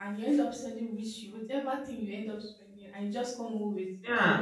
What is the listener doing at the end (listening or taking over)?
taking over